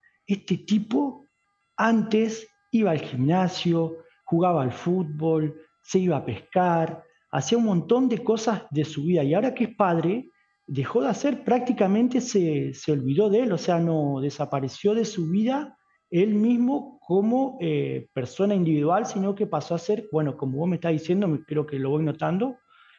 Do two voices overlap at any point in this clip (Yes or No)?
No